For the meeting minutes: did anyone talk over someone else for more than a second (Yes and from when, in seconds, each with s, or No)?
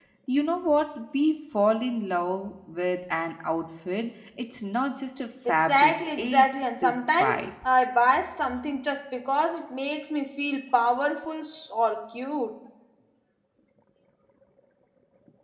Yes, from 5.5 s